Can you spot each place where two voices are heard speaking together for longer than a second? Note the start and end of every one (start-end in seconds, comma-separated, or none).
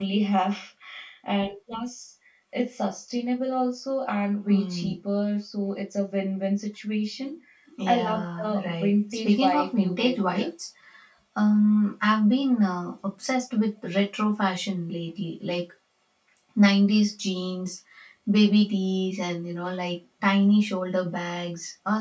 7.9-10.5